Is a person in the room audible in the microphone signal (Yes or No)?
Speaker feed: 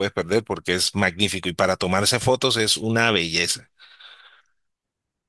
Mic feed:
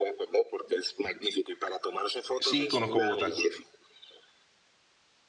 Yes